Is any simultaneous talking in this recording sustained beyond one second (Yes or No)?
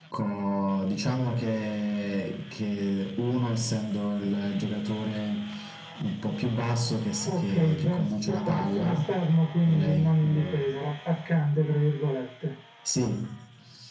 Yes